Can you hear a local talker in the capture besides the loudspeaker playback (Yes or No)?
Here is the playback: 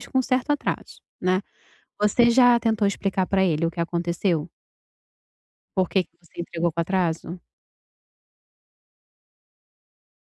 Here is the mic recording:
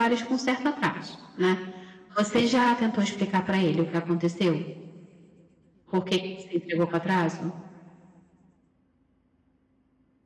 No